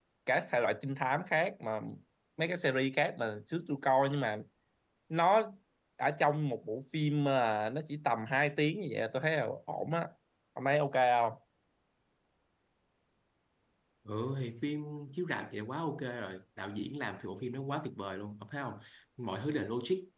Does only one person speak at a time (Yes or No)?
Yes